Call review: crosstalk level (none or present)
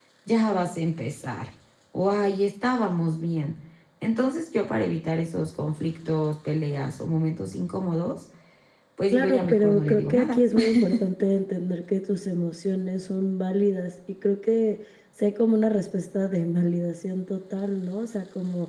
present